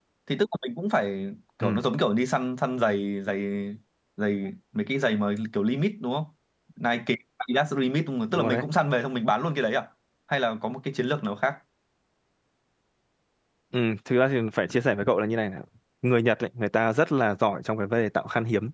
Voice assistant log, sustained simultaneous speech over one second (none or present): none